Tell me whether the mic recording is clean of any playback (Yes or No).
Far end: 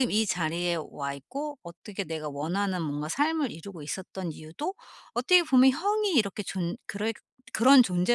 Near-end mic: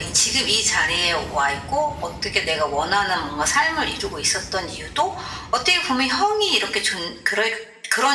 No